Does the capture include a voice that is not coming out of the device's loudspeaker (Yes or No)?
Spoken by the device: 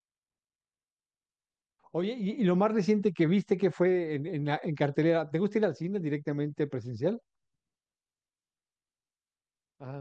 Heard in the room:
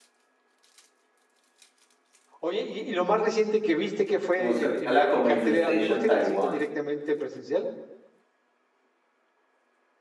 Yes